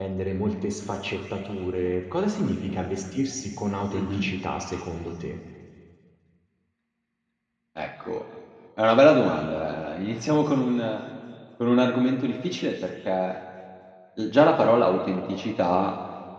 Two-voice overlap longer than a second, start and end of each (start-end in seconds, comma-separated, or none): none